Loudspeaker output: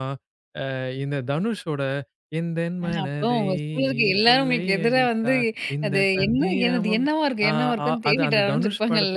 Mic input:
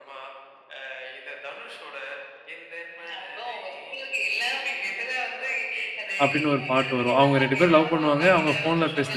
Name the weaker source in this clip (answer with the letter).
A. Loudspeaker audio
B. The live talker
A